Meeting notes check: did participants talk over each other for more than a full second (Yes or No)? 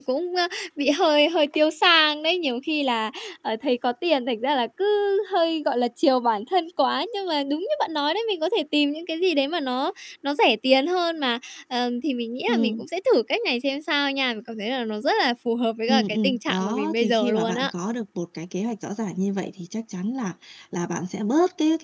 Yes